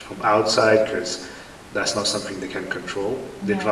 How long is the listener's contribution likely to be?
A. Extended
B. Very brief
B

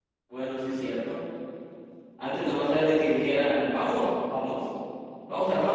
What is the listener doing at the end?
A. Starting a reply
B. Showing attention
B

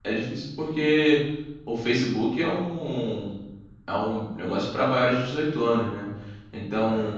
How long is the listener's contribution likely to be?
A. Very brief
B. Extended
A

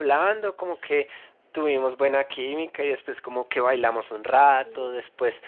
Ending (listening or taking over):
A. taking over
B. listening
B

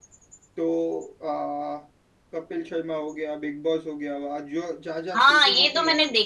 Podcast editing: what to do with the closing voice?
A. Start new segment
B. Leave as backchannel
A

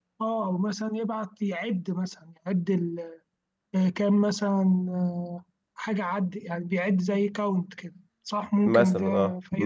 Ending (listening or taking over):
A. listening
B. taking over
B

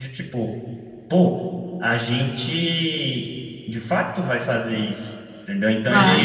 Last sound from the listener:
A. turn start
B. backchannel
B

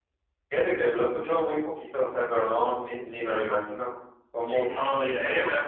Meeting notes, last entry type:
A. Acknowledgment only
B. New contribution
B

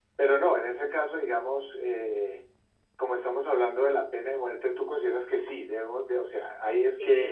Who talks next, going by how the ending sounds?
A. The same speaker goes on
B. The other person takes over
B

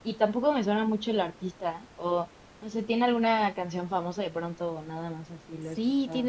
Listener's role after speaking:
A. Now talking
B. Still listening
A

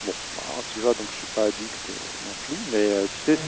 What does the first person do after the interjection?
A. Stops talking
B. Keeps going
A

